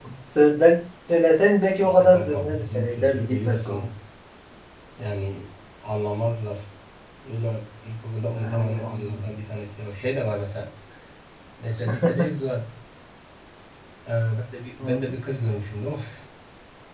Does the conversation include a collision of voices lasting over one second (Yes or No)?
Yes